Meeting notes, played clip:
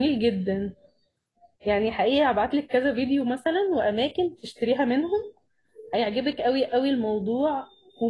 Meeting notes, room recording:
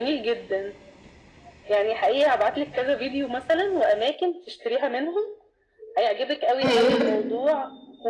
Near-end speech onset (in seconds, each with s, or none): 6.7 s